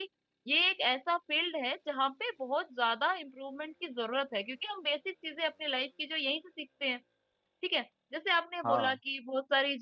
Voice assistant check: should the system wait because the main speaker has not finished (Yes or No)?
Yes